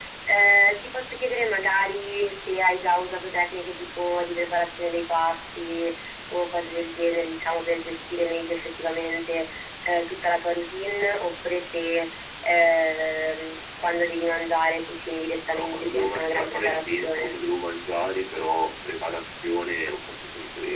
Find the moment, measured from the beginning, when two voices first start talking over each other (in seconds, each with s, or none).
15.5 s